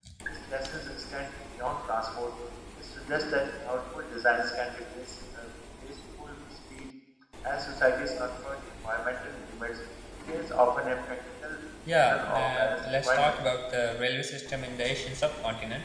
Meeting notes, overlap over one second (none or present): present